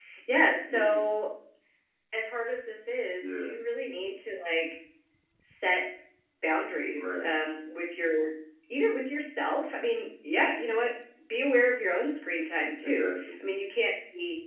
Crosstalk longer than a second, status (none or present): none